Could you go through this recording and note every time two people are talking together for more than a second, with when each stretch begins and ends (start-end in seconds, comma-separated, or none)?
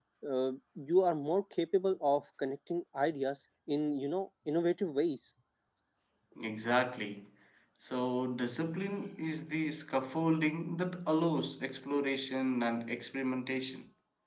none